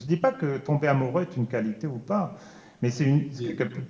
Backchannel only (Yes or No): Yes